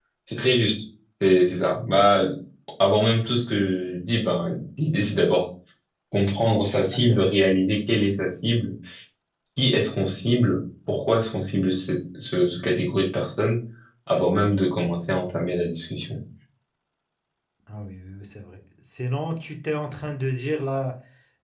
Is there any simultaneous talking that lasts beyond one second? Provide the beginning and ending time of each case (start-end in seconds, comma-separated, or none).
none